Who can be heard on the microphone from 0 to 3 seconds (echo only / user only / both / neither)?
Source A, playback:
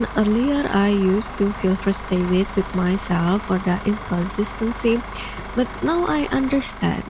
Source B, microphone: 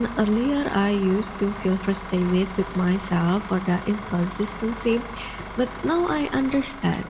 echo only